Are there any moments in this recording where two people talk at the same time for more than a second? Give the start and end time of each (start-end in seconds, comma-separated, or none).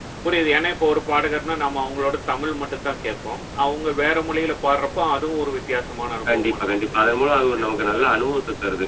6.3-8.1